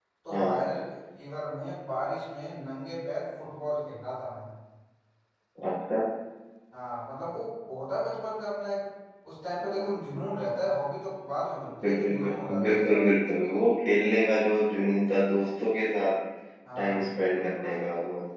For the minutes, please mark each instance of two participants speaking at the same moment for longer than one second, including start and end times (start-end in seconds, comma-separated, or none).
11.8-13.1